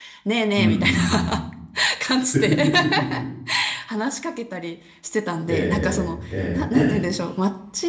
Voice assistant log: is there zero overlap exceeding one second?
No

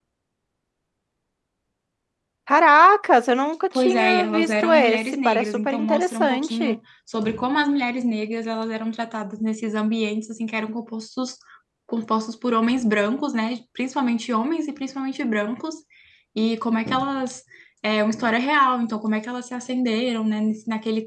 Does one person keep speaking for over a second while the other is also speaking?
Yes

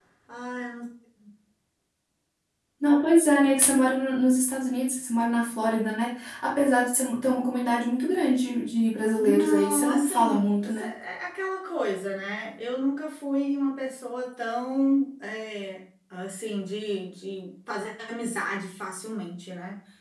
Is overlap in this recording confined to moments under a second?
No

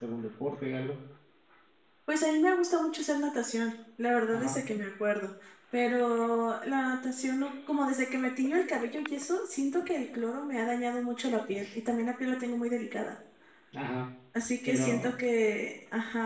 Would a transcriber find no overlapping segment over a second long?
Yes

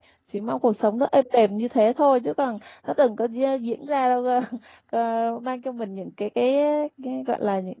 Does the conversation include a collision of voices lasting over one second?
No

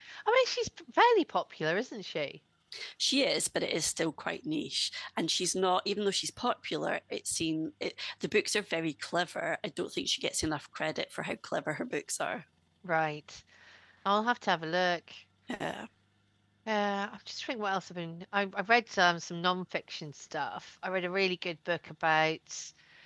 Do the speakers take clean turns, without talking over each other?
Yes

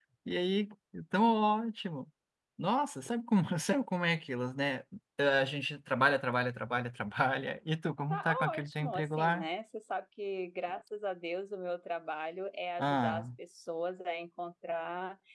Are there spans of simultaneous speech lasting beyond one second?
Yes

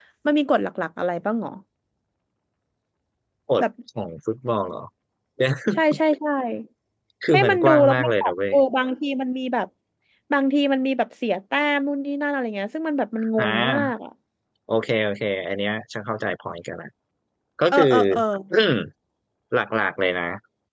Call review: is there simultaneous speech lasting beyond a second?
Yes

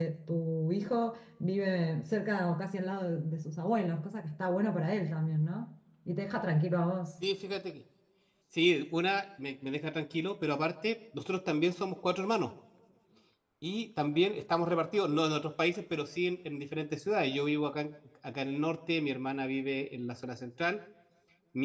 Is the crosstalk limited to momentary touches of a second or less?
Yes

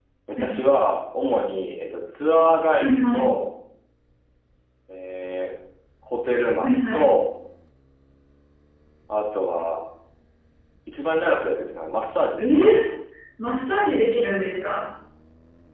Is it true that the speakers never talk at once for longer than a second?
Yes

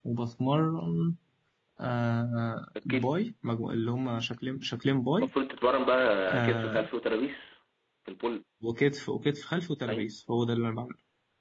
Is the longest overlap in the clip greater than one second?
No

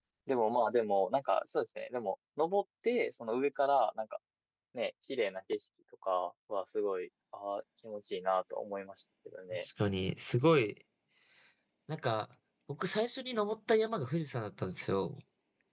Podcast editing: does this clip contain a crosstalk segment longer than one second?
No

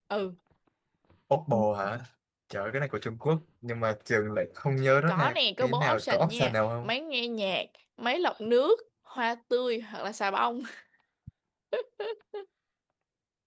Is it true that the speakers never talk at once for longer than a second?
No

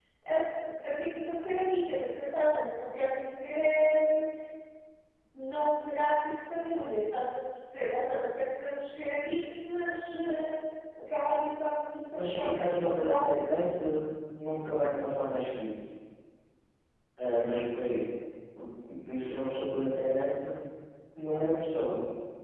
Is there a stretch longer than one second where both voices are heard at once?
Yes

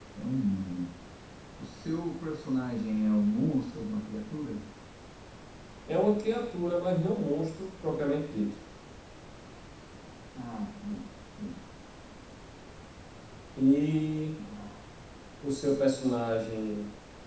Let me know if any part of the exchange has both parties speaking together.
No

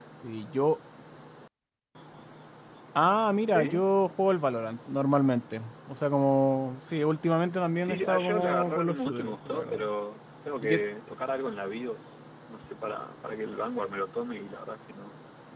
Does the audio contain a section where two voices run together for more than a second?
Yes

